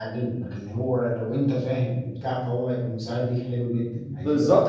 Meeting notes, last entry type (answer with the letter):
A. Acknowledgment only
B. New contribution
B